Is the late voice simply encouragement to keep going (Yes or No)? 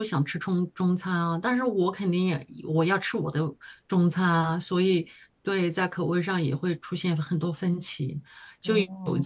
Yes